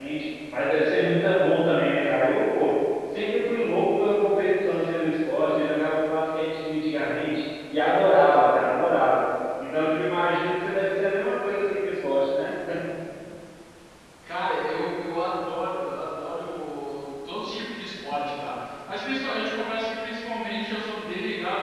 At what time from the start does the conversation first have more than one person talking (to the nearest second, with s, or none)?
none